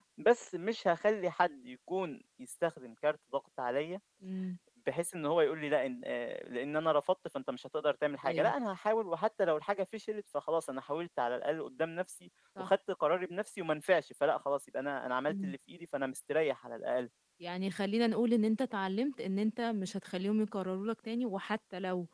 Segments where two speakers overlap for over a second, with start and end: none

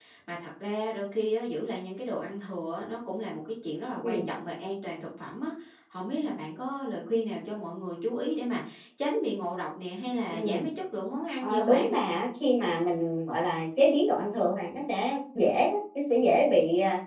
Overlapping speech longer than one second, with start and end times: none

